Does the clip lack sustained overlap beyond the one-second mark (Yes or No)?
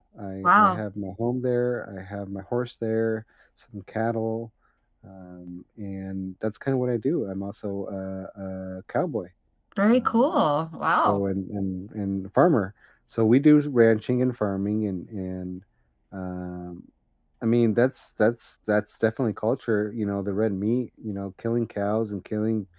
Yes